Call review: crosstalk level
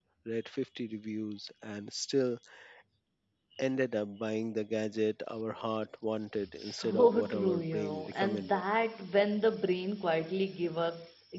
present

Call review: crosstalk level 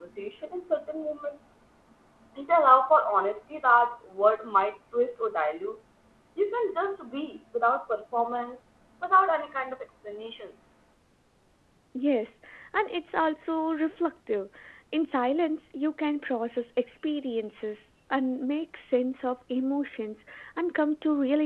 none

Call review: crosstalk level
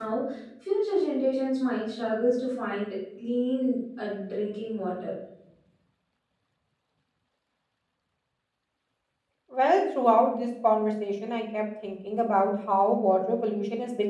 none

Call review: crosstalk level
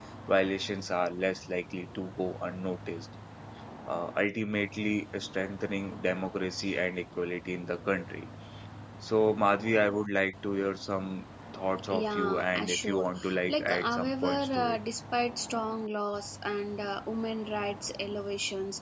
present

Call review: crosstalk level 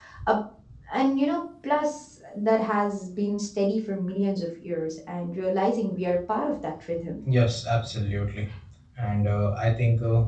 none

